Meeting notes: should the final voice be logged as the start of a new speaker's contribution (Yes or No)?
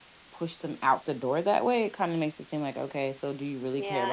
Yes